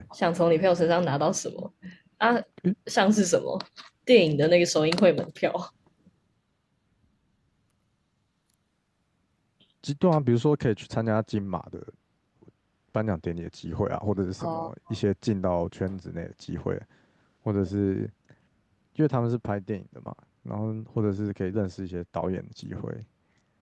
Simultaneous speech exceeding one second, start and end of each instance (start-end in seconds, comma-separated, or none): none